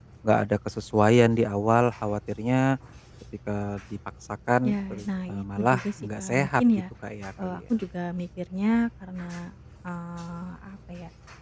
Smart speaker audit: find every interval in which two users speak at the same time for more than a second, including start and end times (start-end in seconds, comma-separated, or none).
4.7-6.6